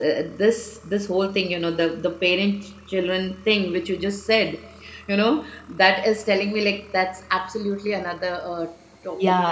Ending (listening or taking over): taking over